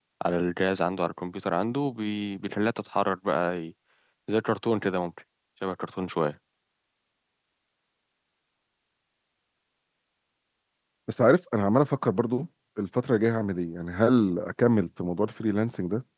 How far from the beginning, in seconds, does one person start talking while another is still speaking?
none

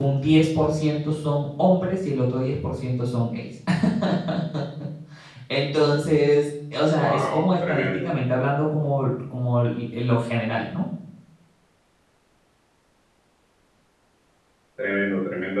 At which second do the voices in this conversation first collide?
7 s

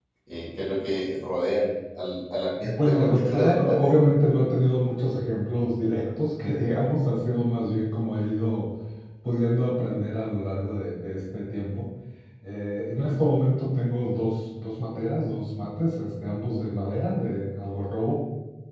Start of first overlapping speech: 3 s

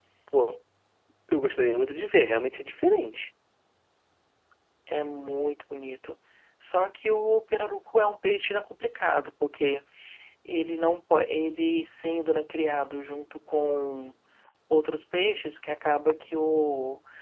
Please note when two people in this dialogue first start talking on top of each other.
none

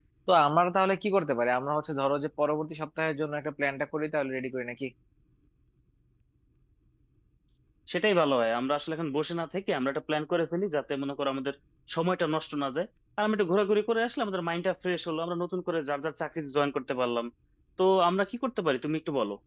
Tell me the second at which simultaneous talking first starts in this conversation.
none

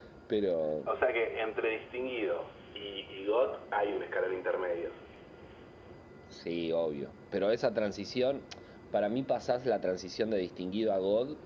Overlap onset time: none

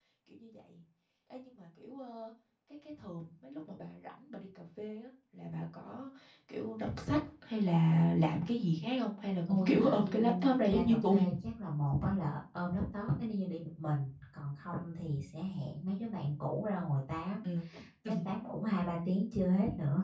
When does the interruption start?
10 s

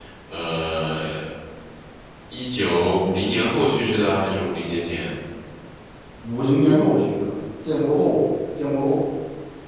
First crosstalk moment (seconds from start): none

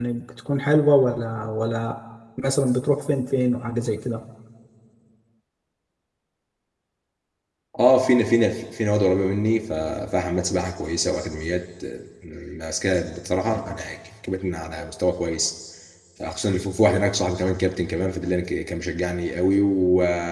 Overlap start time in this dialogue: none

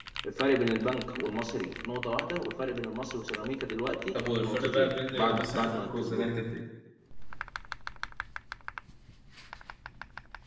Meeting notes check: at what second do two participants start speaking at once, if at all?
4 s

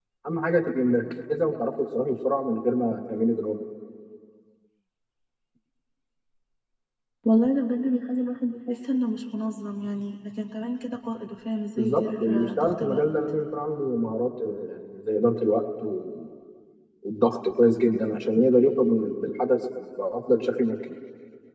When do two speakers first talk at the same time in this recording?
12 s

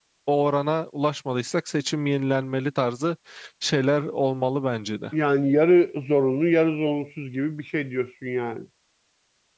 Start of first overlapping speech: none

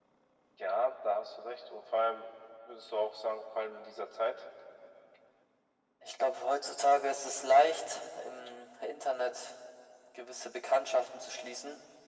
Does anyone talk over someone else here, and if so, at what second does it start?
none

